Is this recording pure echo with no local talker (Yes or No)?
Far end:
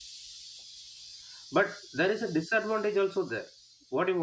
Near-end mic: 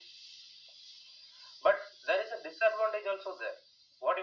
Yes